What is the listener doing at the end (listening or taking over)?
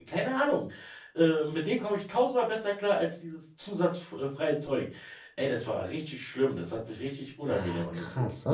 taking over